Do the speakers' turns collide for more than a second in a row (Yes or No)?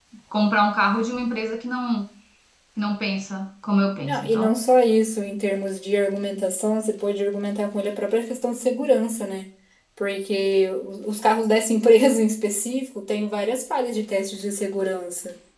No